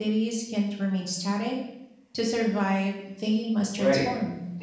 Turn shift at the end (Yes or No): Yes